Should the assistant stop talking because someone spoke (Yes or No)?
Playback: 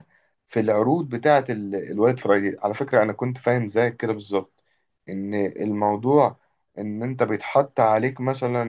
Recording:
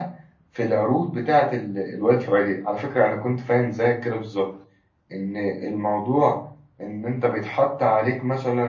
No